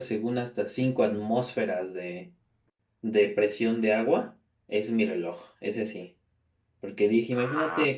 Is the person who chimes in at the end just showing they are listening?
Yes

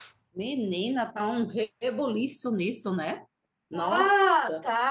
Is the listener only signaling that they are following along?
No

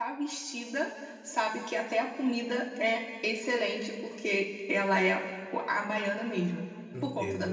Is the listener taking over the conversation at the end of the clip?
Yes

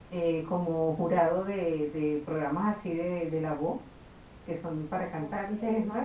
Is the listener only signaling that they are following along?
Yes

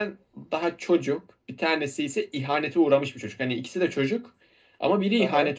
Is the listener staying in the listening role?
Yes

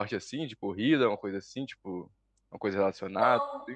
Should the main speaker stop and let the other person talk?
Yes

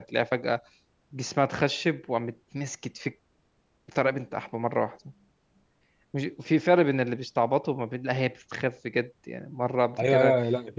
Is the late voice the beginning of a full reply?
Yes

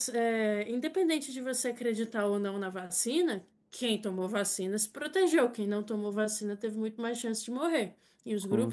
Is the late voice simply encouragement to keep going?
Yes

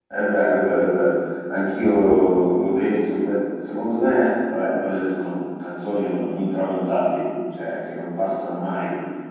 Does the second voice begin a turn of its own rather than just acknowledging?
No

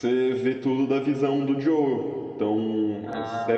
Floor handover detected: No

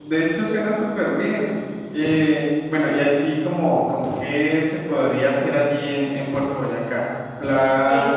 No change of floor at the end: Yes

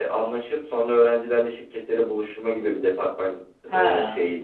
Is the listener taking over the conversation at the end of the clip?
No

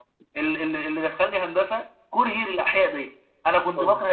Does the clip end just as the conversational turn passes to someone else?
No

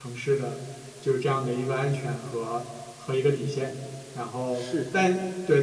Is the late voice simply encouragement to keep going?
Yes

